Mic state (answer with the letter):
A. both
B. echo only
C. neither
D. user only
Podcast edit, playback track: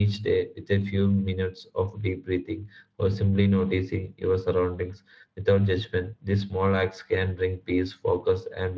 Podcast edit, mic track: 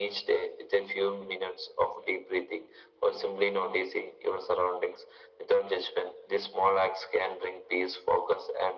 B